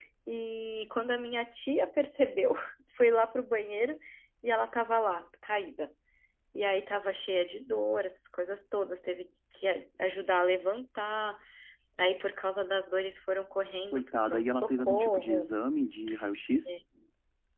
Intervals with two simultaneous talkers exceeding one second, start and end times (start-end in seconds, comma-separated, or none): 13.9-15.5